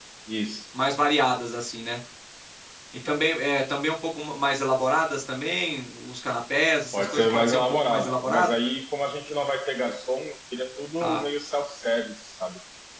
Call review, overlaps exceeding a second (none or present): present